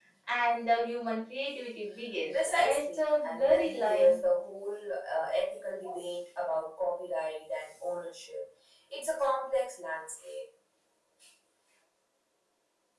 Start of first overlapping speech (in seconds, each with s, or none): 2.3 s